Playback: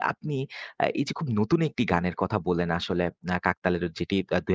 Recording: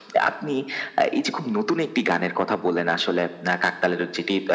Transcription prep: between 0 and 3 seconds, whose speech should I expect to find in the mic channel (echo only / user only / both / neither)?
echo only